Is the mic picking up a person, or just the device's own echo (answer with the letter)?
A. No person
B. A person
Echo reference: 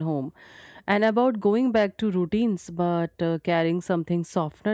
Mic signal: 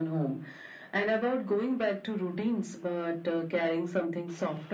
A